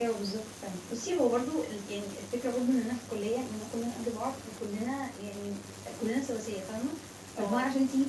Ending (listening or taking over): listening